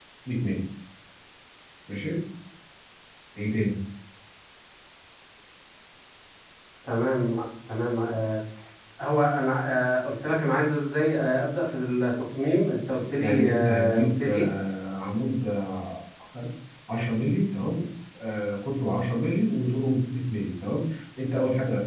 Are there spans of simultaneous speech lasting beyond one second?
Yes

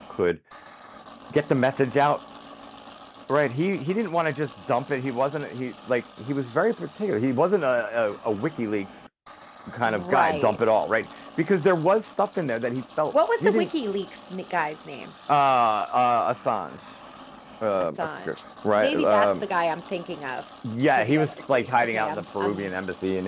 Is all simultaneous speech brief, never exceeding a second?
No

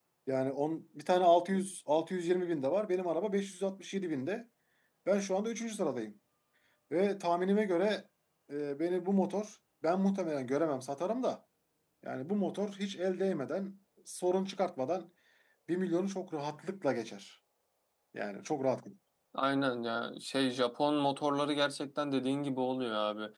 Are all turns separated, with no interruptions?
Yes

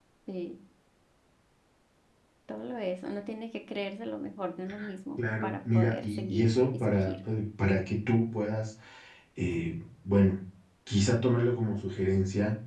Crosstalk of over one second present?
Yes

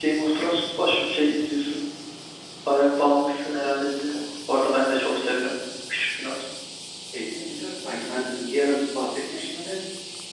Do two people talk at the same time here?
No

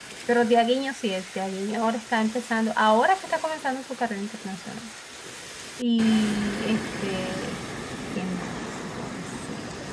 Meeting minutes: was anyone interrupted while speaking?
No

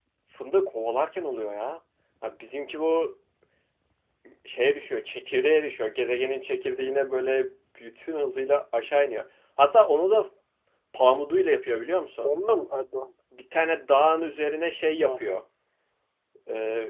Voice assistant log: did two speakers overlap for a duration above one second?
No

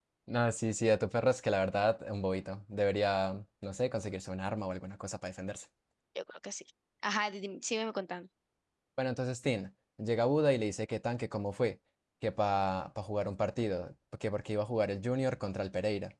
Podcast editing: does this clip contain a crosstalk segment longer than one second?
No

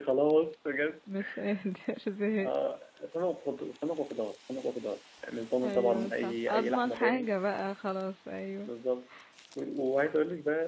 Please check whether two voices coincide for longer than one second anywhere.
Yes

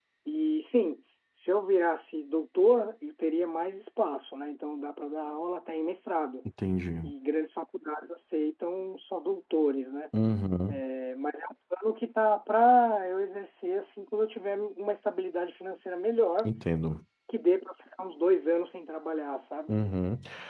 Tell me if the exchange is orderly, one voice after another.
Yes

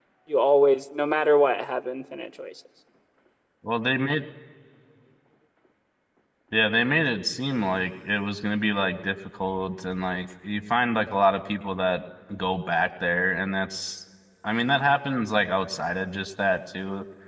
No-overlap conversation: Yes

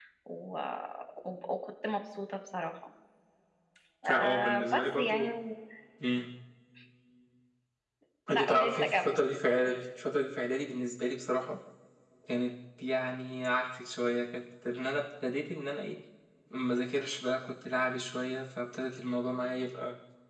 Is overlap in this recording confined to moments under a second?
No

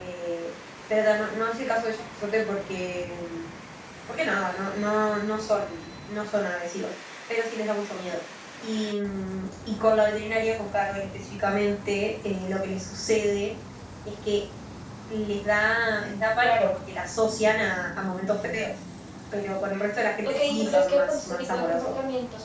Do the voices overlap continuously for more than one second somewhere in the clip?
Yes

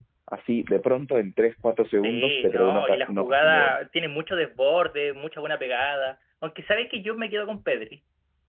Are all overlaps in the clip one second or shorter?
No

